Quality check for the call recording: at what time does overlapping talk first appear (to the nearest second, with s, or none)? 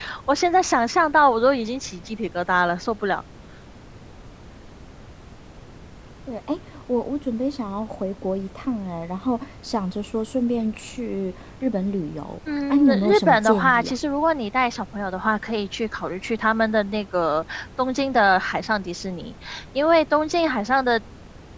13 s